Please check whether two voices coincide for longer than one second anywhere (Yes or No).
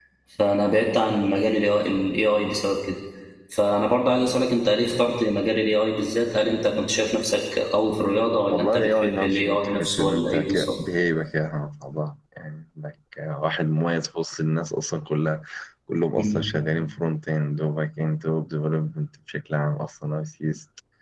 Yes